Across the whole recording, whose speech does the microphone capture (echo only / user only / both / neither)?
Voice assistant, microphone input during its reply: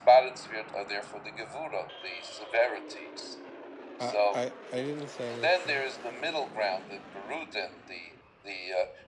both